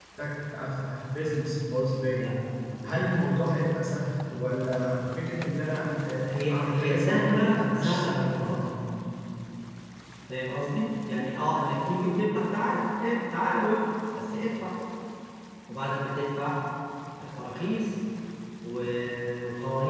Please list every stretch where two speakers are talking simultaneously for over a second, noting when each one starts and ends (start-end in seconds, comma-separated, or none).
6.3-8.7